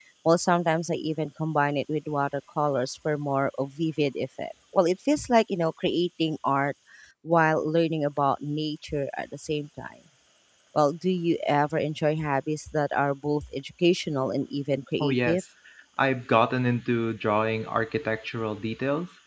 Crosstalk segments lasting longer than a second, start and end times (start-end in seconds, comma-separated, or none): none